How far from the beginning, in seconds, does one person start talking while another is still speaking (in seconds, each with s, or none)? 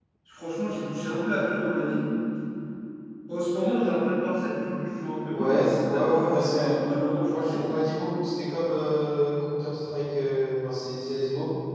5.3 s